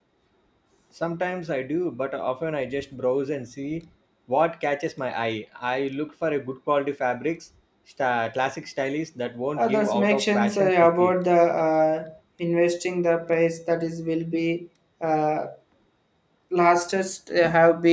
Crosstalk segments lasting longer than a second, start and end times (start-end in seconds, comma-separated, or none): 9.6-11.2